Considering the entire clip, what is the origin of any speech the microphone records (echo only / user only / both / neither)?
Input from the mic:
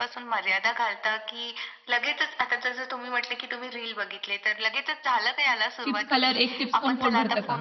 both